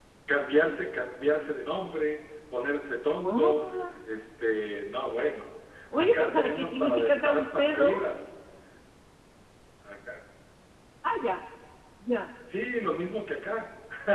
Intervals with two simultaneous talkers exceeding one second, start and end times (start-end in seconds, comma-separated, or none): 5.9-7.9